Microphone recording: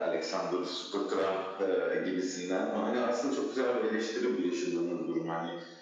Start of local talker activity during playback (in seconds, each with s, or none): none